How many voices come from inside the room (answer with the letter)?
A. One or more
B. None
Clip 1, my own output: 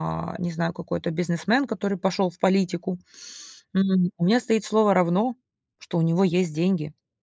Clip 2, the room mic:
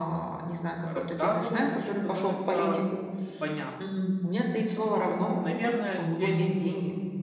A